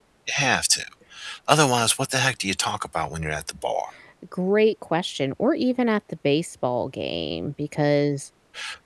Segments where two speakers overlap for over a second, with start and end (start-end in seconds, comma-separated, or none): none